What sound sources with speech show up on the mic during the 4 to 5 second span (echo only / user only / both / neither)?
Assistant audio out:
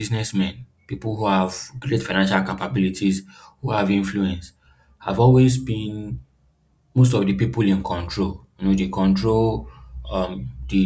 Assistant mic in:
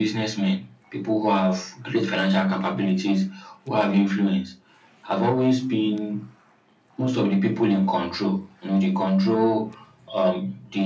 echo only